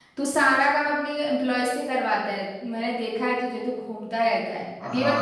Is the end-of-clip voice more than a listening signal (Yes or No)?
Yes